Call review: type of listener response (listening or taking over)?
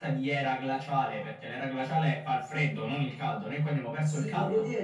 taking over